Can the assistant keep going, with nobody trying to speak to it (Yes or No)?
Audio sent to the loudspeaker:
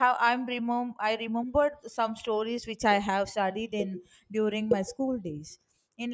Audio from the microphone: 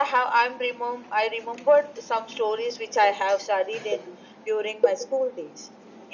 Yes